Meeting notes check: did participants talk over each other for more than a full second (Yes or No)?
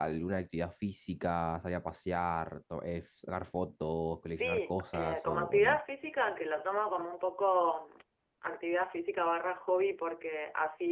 Yes